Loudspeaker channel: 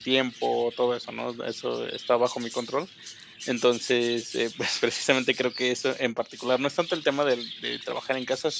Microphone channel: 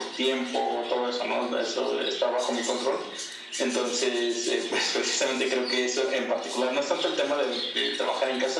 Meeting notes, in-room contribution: none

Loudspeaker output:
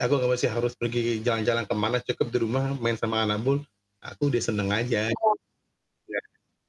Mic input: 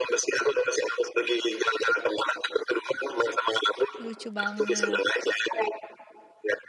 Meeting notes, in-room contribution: present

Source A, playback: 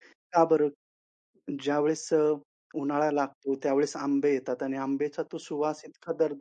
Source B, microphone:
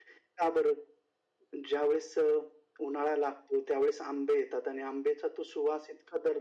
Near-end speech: none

